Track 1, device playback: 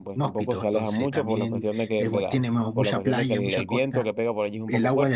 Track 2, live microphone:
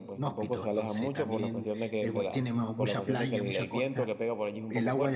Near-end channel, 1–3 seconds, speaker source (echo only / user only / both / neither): echo only